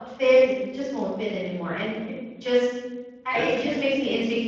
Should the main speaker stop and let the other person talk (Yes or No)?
No